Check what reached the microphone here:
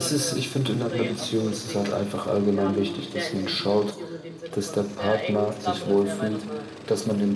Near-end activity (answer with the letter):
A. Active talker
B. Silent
B